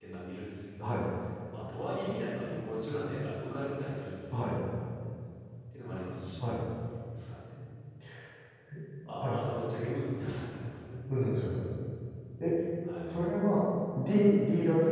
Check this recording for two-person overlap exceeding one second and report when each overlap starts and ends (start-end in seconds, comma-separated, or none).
none